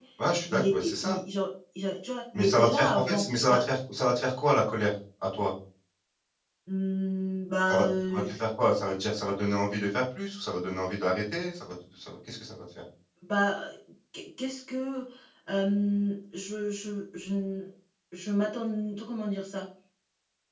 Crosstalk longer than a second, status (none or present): present